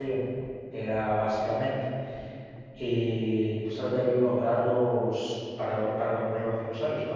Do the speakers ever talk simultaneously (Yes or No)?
No